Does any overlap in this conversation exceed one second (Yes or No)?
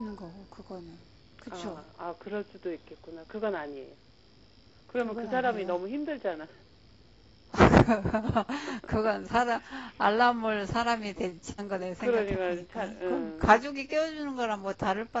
Yes